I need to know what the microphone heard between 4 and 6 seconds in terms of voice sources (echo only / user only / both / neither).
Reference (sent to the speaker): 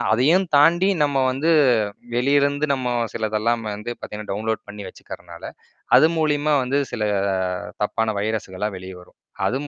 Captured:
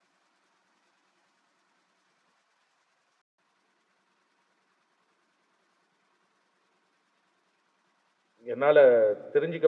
neither